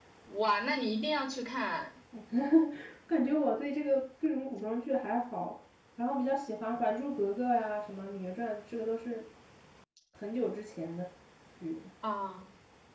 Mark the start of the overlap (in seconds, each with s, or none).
none